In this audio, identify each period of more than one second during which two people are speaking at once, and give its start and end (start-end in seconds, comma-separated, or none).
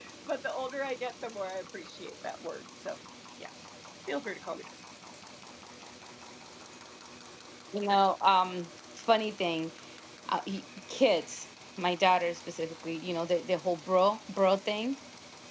none